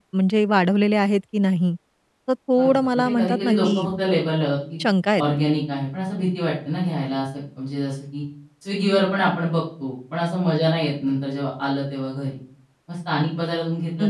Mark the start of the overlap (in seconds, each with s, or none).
2.6 s